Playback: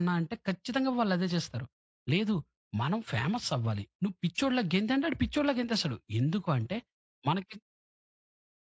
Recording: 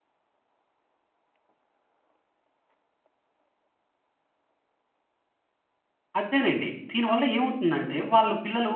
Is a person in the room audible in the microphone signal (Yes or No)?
Yes